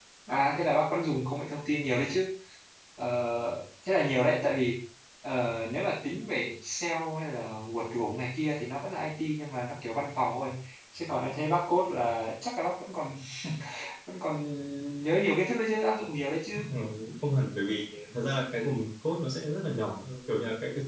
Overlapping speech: No

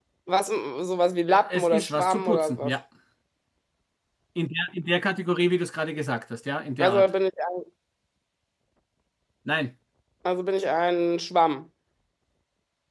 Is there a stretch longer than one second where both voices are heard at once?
Yes, from 1.3 s

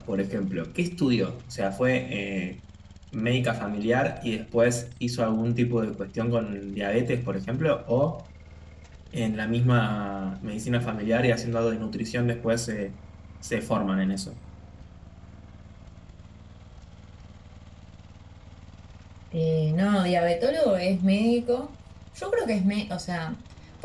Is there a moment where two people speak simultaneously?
No

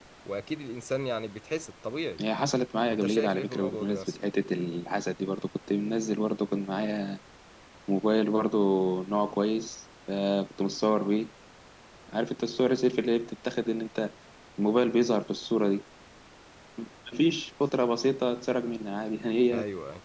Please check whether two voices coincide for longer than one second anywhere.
Yes, from 2.9 s

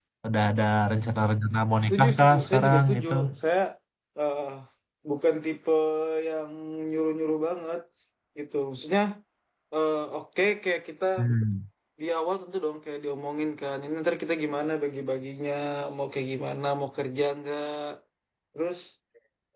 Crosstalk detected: Yes, from 1.8 s

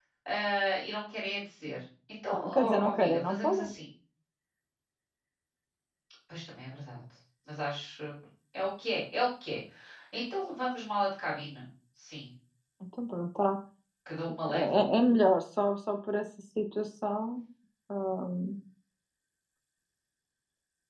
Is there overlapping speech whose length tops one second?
Yes, from 2.4 s

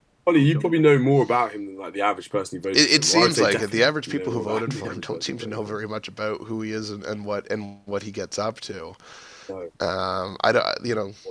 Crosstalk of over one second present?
Yes, from 2.7 s

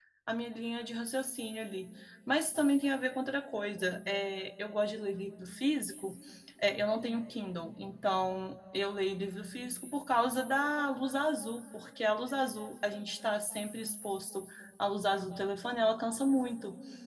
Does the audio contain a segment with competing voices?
No

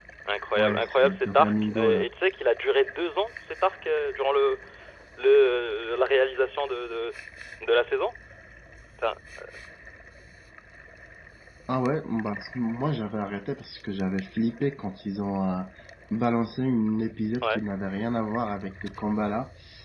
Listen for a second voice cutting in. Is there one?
Yes, from 0.6 s

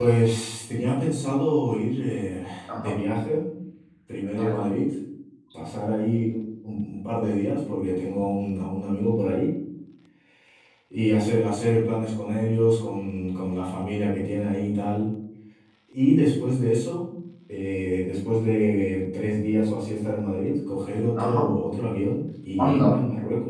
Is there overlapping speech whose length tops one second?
No

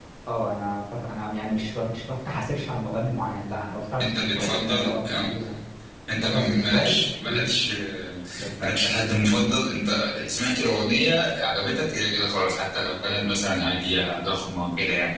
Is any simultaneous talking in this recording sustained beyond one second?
Yes, from 4.0 s

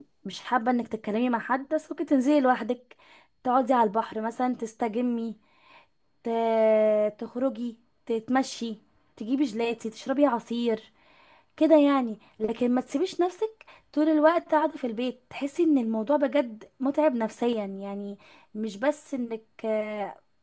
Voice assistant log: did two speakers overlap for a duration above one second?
No

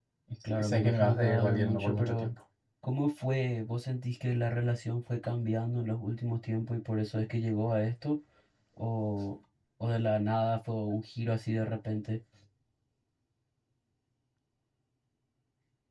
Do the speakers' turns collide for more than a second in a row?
Yes, from 0.6 s

